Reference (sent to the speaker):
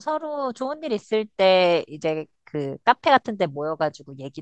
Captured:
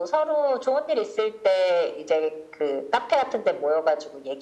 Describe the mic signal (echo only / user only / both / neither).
echo only